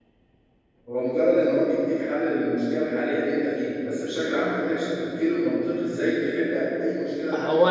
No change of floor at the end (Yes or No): No